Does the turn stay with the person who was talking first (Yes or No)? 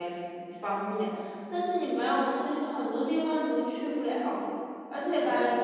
Yes